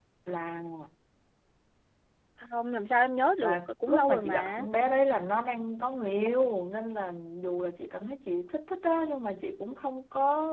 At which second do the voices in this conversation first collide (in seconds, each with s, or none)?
3.4 s